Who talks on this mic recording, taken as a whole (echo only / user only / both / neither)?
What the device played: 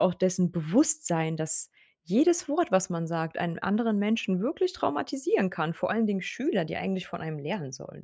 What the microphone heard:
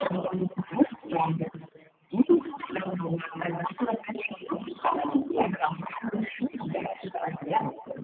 echo only